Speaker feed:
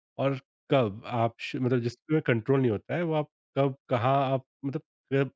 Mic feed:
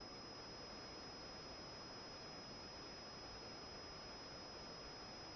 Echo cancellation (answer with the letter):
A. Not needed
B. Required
A